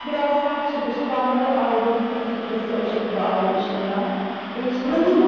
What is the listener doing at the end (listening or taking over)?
taking over